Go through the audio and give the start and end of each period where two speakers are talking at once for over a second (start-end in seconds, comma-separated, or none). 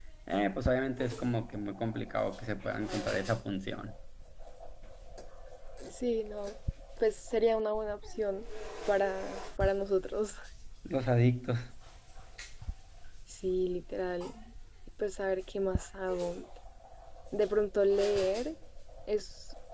none